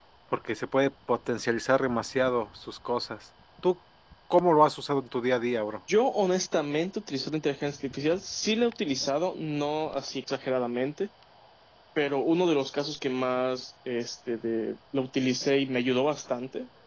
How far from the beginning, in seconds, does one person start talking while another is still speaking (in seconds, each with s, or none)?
none